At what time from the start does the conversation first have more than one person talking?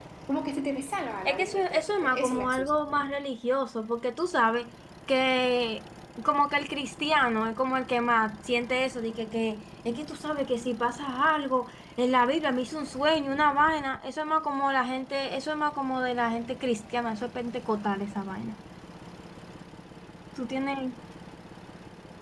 1 s

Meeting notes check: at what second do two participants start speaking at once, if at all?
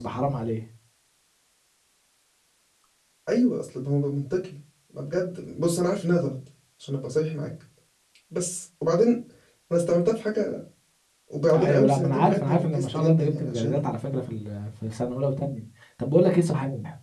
12 s

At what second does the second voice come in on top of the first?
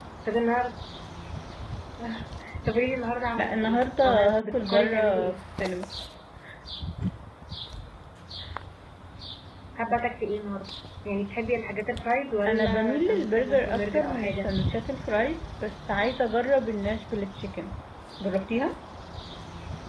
3 s

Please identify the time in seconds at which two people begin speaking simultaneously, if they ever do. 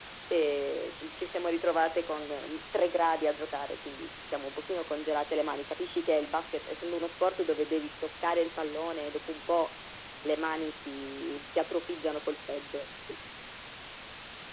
none

